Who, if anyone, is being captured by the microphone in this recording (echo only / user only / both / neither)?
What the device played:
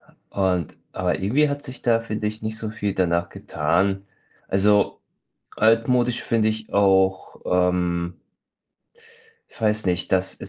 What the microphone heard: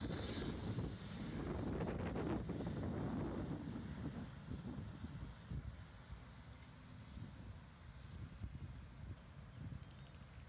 neither